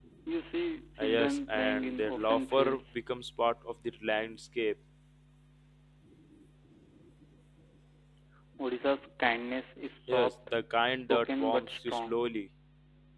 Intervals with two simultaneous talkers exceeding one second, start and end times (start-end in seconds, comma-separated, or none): 1.0-2.8, 10.9-12.2